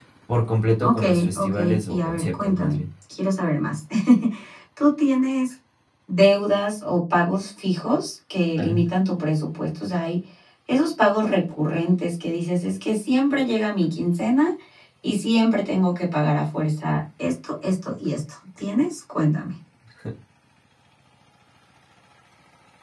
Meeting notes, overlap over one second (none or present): present